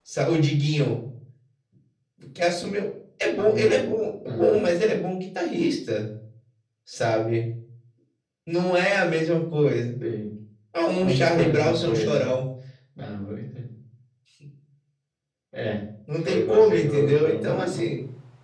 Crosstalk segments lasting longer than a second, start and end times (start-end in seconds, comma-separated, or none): 11.0-12.3, 16.2-17.9